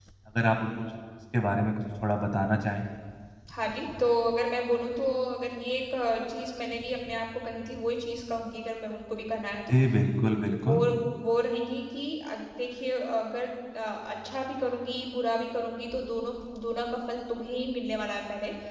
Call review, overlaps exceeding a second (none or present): none